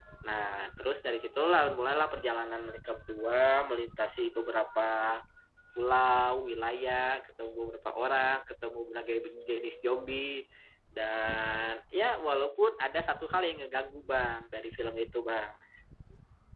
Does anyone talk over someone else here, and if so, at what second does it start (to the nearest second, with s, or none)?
none